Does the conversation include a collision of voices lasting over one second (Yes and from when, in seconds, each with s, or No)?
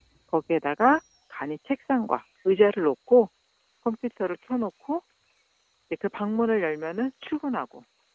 No